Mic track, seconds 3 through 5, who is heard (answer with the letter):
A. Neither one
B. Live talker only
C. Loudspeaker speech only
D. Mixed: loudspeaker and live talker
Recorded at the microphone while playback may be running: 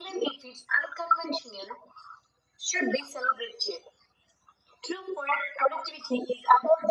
C